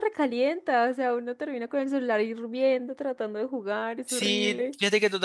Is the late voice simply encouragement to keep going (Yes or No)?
No